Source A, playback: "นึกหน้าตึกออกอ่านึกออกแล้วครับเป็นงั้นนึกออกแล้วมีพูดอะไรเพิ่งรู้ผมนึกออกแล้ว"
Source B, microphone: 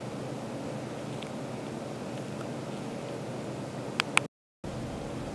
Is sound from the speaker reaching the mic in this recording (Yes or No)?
No